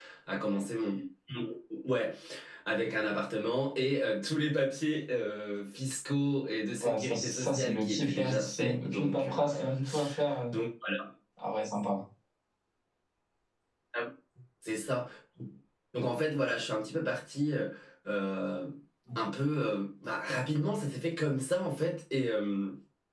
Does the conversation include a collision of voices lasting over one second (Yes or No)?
Yes